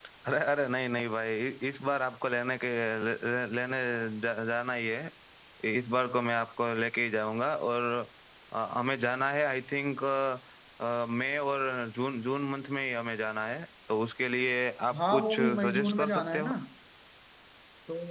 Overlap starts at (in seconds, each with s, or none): 14.9 s